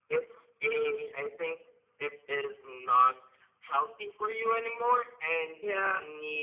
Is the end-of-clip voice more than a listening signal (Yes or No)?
No